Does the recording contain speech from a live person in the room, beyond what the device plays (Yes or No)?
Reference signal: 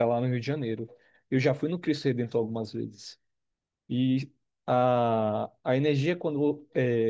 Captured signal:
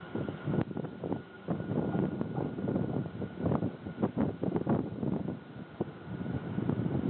No